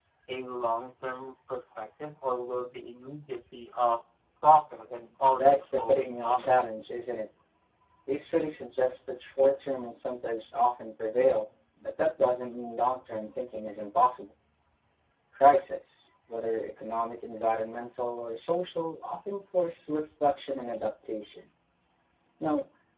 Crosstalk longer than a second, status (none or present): present